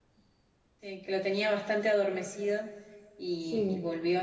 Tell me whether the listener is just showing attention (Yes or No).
Yes